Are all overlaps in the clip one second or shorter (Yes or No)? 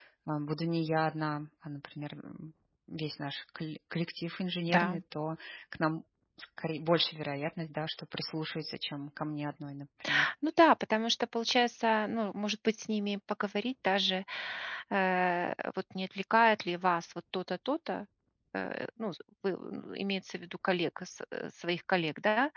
Yes